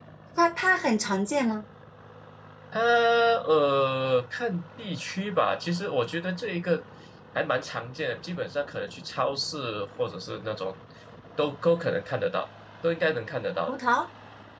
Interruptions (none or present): none